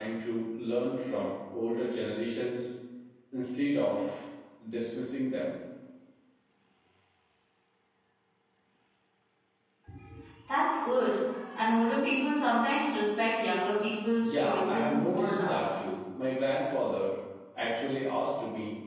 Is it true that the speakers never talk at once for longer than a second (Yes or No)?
No